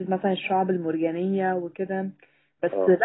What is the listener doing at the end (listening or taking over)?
listening